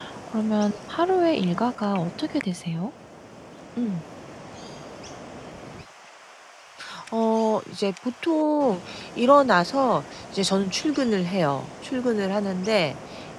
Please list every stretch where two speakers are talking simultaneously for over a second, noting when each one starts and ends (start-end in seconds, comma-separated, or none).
none